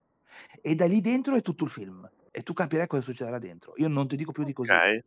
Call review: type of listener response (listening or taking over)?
taking over